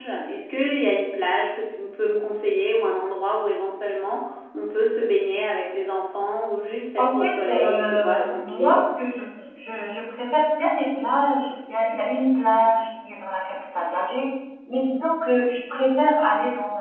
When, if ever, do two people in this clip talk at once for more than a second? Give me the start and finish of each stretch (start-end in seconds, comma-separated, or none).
7.0-8.8